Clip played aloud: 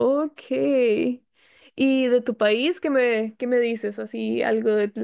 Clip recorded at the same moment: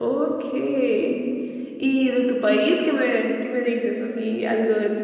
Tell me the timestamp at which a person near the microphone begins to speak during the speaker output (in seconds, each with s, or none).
none